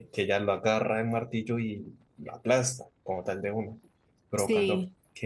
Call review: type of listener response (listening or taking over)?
listening